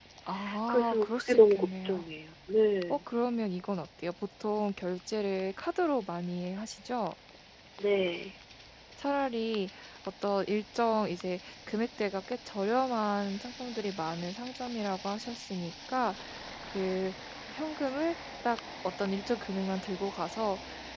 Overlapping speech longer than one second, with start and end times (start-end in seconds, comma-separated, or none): 0.7-2.0